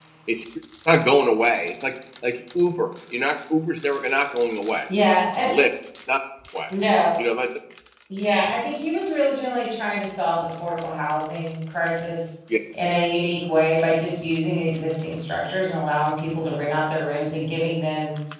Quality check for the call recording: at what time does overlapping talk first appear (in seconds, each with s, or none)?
none